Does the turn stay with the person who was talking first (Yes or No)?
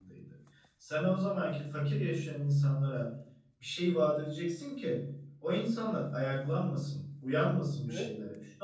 Yes